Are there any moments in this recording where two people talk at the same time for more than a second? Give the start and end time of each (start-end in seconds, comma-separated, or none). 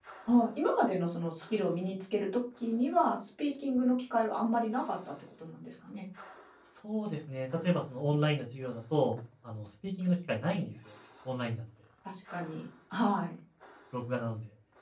none